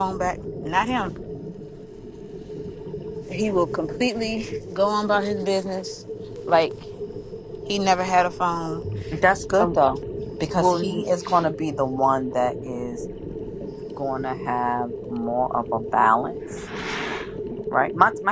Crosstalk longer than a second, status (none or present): none